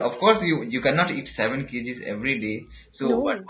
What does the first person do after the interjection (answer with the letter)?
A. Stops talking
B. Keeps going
B